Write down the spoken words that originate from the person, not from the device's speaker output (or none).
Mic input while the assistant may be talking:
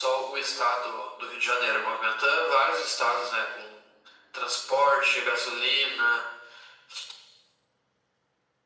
none